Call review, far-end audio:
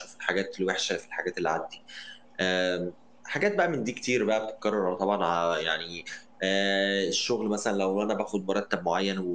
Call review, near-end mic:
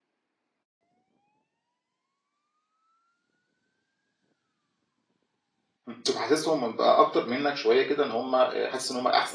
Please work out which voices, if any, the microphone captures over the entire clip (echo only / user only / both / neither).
user only